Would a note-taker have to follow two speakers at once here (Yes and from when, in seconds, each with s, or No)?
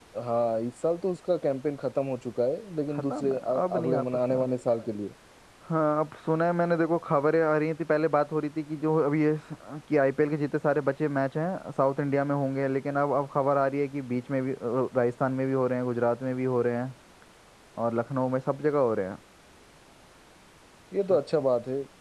Yes, from 3.1 s